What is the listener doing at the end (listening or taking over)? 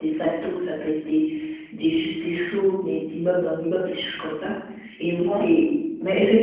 listening